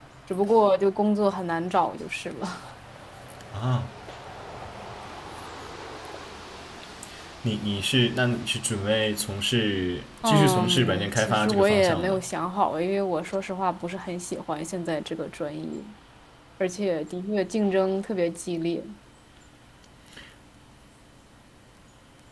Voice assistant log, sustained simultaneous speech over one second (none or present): present